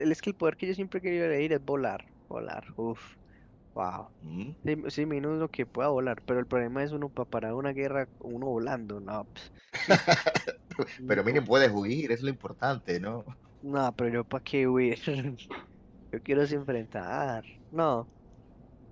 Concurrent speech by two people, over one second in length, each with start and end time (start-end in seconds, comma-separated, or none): none